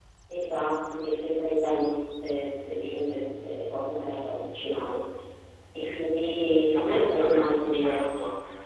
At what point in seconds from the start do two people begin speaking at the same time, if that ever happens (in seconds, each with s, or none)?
6.8 s